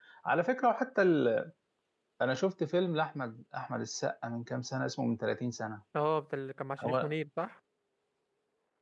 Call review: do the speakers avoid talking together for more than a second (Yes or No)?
Yes